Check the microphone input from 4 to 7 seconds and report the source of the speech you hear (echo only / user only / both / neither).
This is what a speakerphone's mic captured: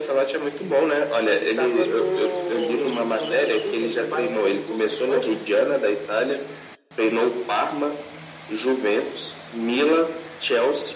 echo only